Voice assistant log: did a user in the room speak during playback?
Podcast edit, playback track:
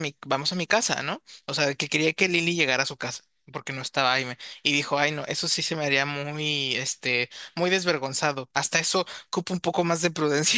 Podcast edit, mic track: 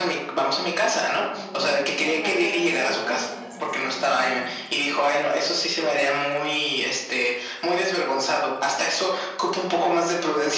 Yes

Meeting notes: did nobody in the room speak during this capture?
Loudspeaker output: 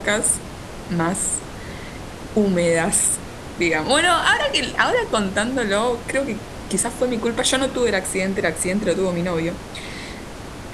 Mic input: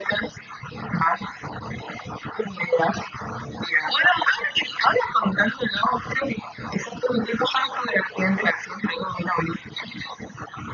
Yes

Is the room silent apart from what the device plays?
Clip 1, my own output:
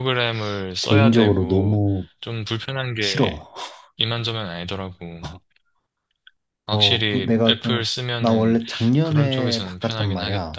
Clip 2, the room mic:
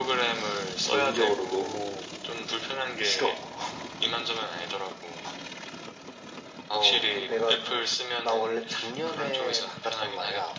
Yes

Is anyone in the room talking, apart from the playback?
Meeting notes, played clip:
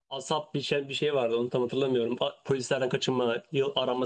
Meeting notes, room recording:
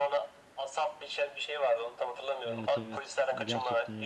Yes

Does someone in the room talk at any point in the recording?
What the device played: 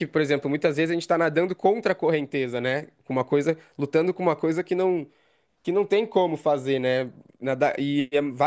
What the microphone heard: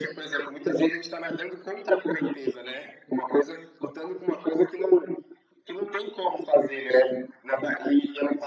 No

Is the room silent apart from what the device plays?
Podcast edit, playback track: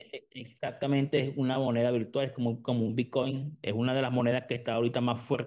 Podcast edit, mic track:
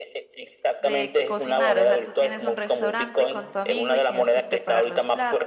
No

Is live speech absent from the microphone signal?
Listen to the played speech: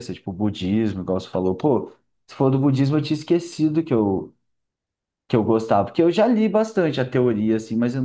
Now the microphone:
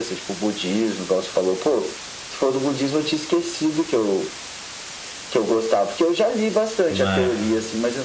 No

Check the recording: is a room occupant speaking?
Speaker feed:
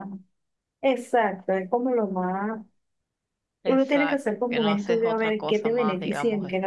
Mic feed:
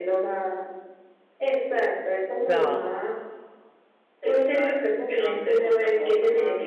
Yes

